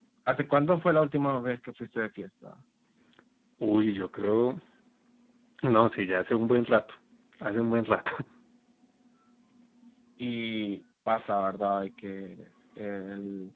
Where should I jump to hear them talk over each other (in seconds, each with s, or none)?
none